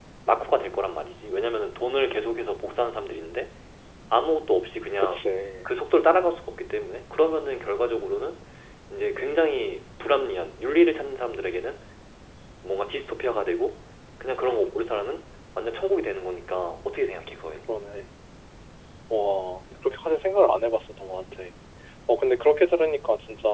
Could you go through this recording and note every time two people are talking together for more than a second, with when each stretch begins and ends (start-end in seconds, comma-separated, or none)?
none